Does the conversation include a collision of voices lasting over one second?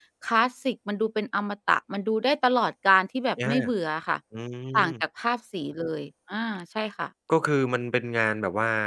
No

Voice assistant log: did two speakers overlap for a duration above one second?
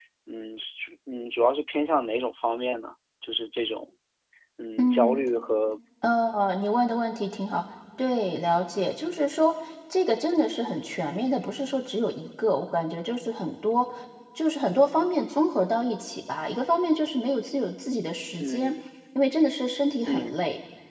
No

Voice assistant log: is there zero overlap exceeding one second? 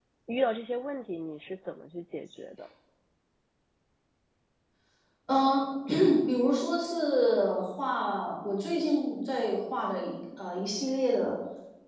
Yes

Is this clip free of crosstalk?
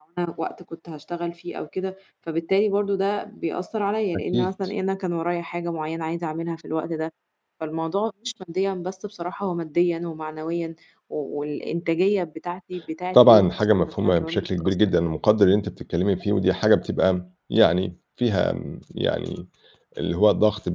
No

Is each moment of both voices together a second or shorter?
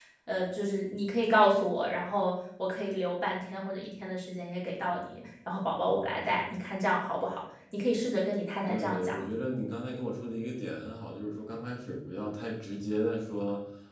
Yes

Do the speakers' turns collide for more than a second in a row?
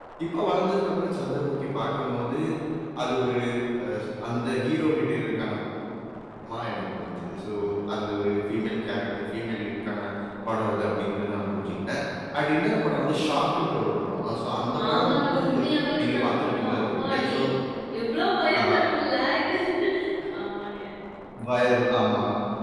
Yes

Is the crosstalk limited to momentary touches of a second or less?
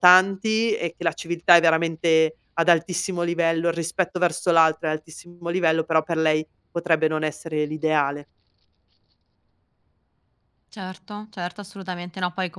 Yes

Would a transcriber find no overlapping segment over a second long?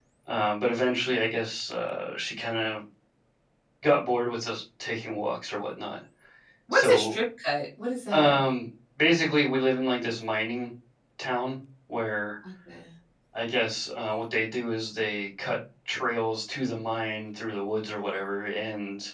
Yes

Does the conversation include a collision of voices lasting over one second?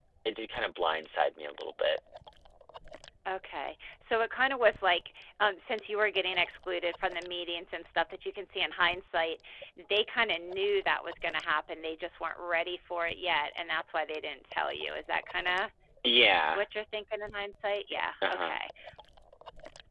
No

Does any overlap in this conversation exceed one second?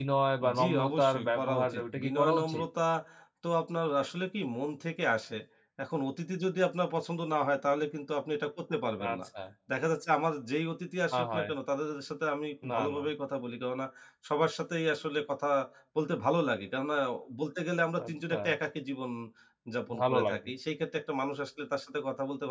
Yes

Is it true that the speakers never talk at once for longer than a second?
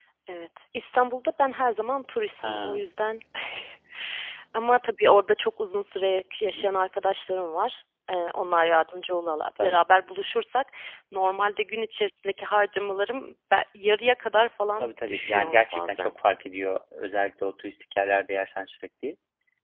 No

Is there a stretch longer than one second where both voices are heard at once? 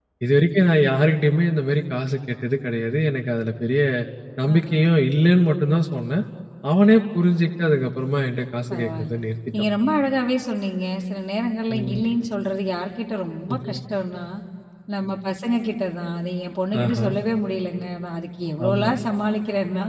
No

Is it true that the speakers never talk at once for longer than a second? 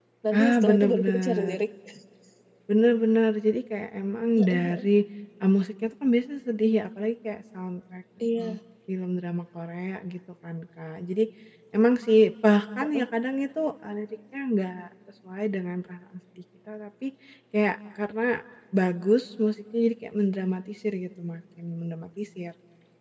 No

